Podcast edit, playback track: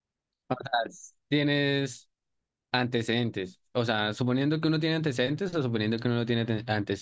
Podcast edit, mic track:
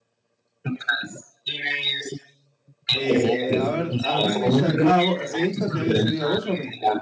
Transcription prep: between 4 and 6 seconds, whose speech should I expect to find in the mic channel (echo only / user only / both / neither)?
both